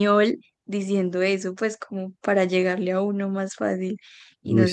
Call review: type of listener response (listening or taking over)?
listening